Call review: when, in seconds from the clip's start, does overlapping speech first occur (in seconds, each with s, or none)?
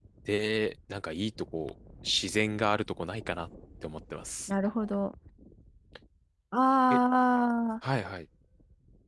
none